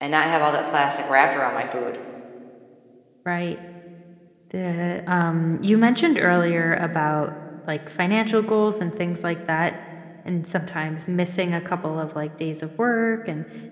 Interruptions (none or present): none